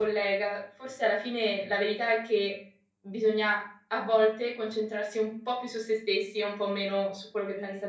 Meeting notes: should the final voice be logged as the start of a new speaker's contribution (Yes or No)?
Yes